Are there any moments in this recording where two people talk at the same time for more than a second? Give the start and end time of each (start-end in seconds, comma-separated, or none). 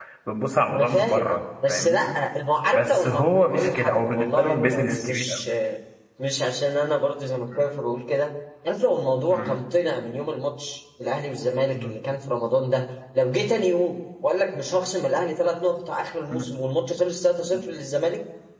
2.7-5.4